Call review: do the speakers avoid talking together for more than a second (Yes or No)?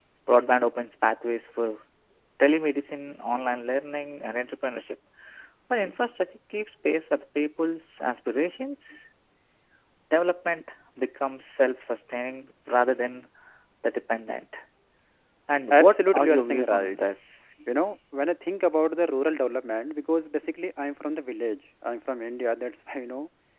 No